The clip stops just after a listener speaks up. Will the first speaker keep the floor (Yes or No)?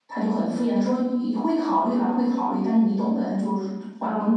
Yes